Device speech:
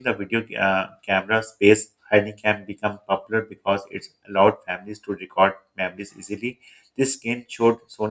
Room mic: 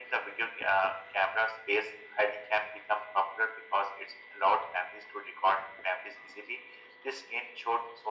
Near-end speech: none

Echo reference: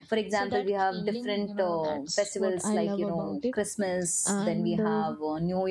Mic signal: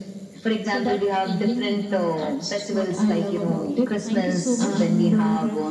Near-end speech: present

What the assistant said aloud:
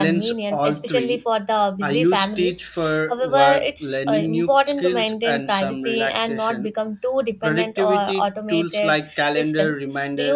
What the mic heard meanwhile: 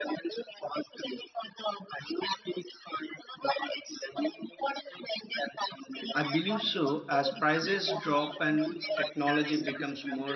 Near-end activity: present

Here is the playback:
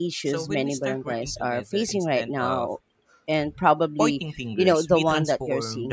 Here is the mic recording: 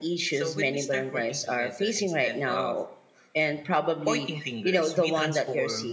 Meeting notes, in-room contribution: none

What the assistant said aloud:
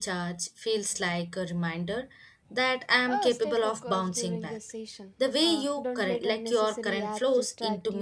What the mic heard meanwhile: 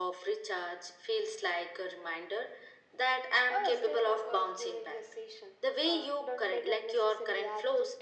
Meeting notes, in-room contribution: none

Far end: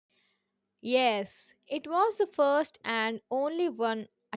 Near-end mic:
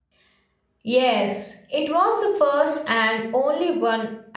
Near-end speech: none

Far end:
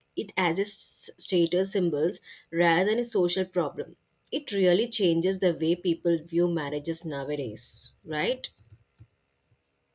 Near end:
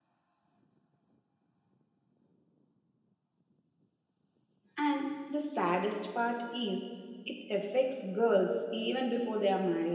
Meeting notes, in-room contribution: present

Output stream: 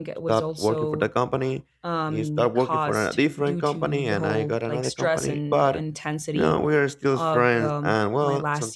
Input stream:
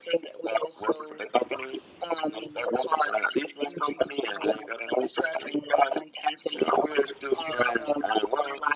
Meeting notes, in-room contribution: none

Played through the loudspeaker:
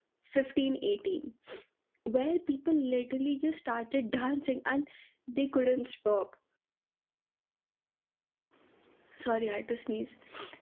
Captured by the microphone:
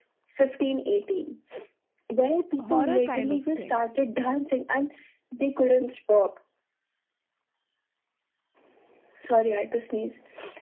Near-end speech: present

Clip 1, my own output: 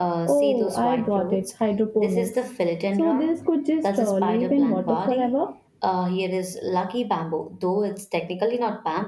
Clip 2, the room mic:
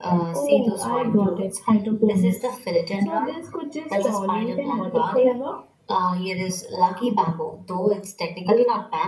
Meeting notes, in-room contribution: none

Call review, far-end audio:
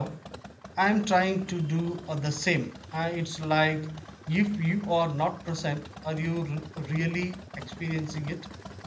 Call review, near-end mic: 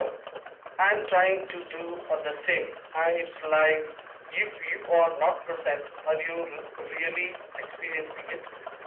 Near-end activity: none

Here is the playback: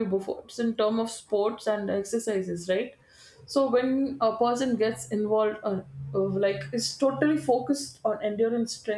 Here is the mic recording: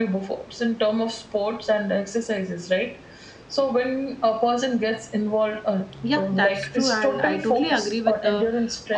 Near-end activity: present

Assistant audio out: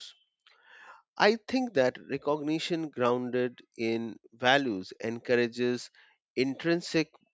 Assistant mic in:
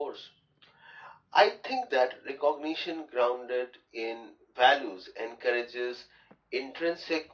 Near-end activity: none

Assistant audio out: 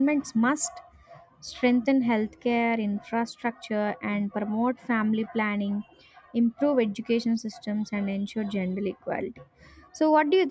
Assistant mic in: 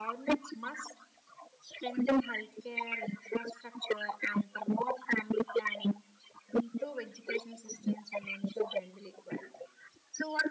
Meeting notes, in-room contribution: none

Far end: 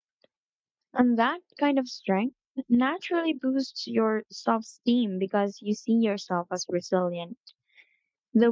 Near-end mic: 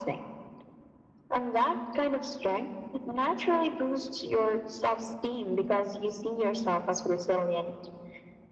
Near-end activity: none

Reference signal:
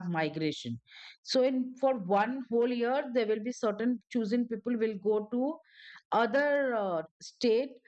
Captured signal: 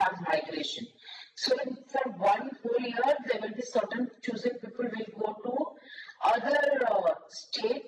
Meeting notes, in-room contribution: none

